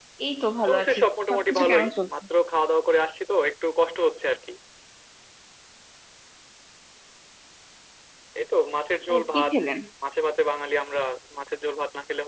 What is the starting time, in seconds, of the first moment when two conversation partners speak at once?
0.7 s

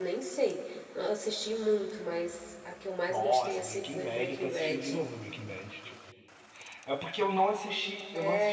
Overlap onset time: 3.1 s

